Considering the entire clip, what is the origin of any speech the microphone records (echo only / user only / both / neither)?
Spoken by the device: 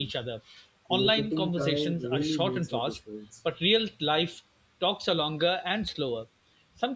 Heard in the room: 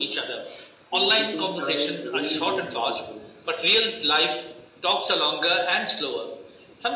echo only